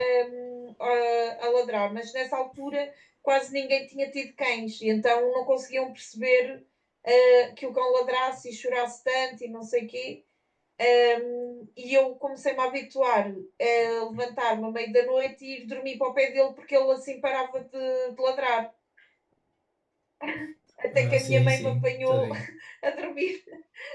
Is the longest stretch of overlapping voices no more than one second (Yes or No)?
No